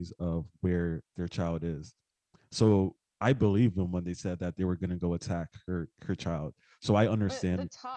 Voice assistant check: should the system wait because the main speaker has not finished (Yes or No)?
No